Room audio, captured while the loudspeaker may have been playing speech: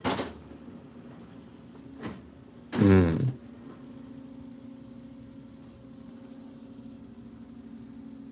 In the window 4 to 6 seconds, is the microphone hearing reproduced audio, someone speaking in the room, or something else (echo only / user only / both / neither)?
neither